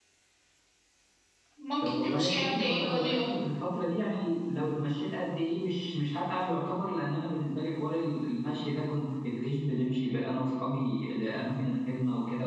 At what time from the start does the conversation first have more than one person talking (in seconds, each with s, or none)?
1.8 s